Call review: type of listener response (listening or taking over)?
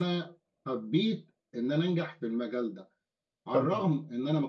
listening